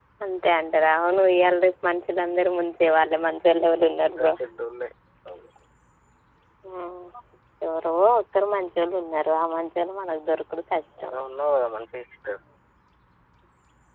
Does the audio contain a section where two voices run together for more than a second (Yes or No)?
No